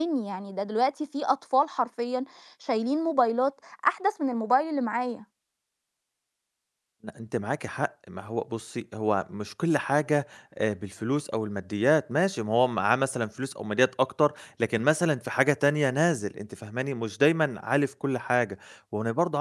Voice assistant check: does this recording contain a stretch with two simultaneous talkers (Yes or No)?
No